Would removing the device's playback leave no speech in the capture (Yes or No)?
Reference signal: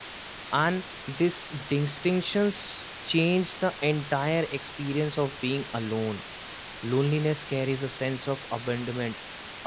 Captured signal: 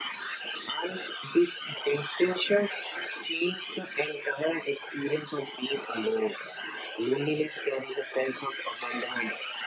Yes